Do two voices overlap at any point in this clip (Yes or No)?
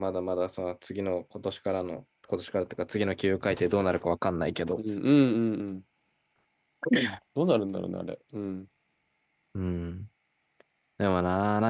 No